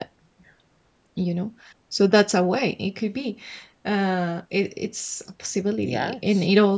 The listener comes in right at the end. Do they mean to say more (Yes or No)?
No